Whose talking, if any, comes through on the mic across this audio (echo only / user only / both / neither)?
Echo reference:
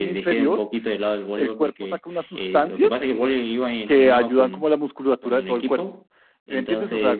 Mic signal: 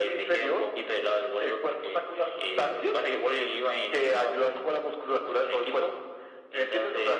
echo only